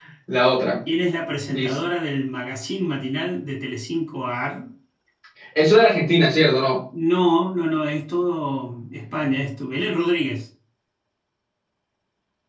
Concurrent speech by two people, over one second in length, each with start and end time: none

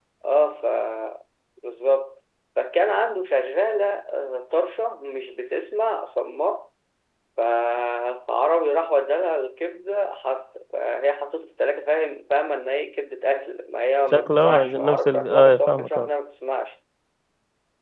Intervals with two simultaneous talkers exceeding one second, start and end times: 14.1-16.1

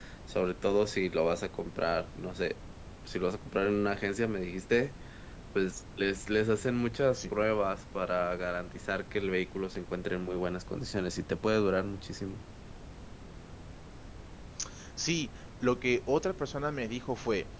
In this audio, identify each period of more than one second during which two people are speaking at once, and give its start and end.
none

